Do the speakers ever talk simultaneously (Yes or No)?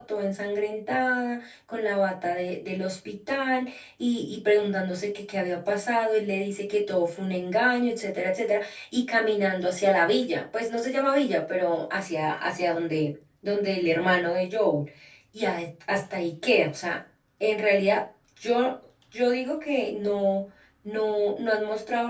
No